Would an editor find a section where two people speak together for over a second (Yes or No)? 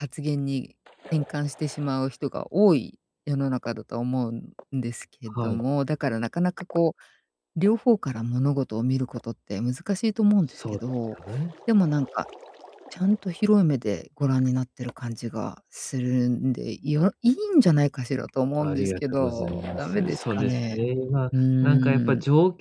Yes